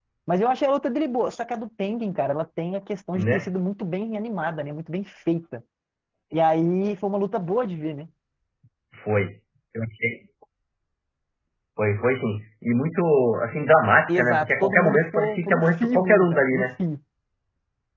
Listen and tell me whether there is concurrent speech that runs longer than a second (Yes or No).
Yes